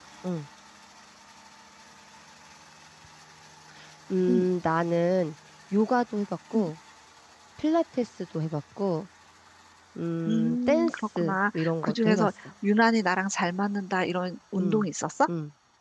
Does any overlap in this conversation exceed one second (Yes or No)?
Yes